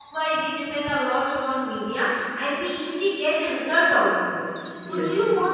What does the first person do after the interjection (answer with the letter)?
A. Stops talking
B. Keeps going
B